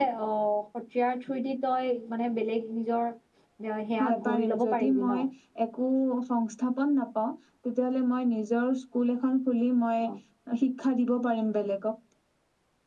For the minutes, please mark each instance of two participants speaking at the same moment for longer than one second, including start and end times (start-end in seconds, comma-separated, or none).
4.0-5.2